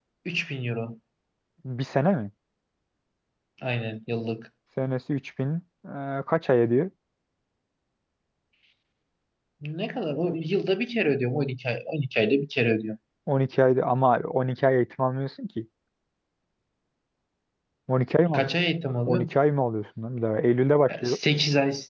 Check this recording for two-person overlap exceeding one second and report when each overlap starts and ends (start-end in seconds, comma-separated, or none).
none